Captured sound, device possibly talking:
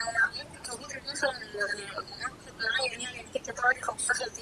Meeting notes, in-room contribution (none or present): none